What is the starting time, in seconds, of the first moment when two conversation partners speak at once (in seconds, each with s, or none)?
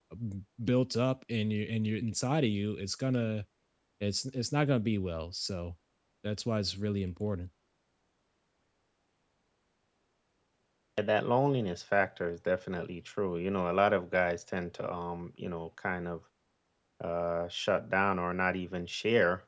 none